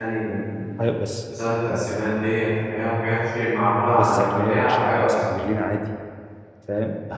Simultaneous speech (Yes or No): Yes